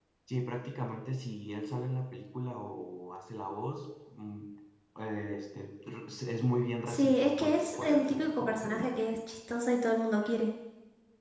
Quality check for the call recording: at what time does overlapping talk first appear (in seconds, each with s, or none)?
6.9 s